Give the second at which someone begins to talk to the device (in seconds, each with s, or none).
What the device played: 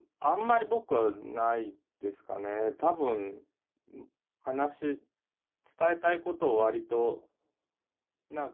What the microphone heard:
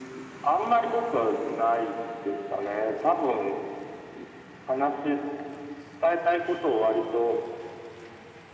none